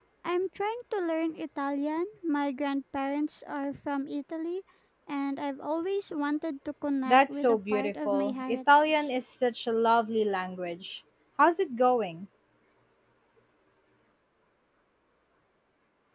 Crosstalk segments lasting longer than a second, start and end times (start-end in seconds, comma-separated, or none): 7.1-8.9